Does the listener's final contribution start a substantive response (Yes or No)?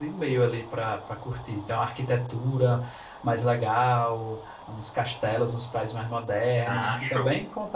No